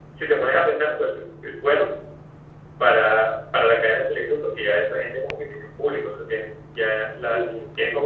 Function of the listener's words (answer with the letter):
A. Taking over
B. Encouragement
B